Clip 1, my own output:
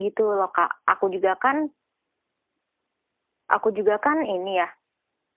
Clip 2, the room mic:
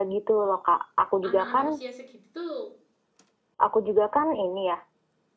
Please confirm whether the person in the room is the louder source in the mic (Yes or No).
No